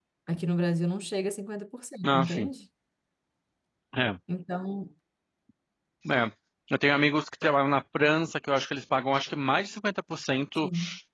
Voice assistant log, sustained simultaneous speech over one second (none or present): none